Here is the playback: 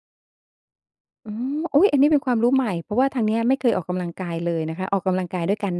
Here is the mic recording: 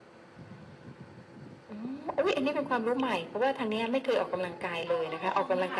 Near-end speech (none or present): present